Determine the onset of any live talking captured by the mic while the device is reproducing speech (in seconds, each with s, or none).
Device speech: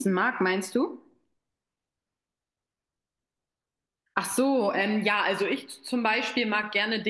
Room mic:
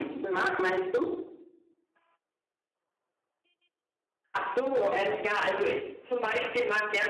none